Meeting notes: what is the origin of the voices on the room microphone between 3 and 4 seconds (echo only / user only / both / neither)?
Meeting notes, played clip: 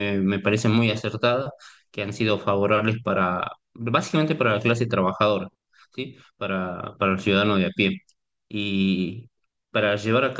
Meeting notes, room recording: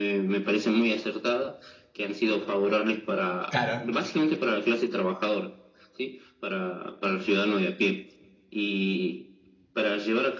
both